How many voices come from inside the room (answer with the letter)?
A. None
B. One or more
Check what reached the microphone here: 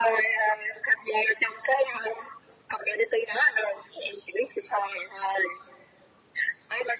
A